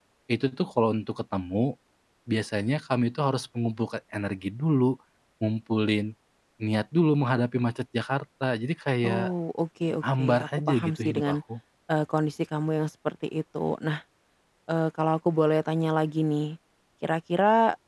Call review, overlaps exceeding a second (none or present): present